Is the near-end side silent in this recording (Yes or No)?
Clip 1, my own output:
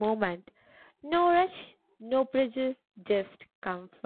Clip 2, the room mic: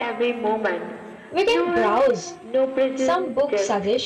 No